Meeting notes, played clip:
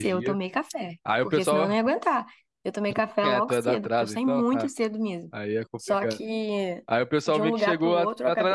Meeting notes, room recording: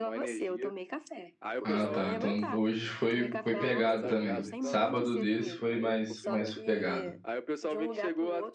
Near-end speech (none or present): present